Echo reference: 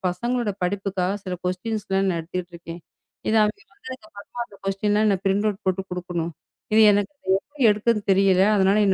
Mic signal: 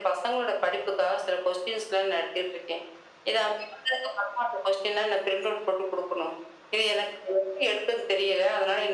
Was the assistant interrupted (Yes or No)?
No